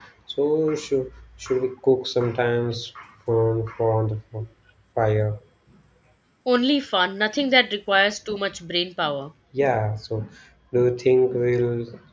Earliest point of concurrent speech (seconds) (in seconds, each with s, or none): none